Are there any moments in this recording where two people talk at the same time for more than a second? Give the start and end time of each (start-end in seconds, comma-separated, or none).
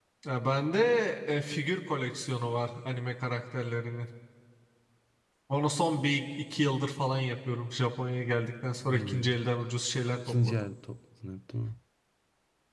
none